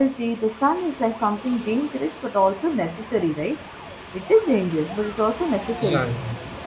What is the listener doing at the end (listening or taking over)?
listening